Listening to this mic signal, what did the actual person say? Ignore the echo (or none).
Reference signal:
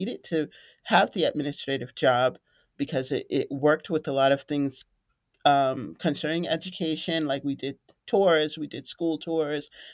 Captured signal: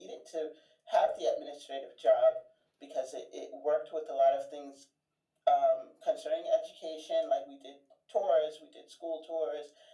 none